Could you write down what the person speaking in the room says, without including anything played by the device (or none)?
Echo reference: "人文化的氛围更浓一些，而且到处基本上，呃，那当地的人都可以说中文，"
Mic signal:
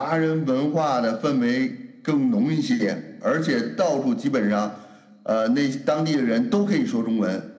none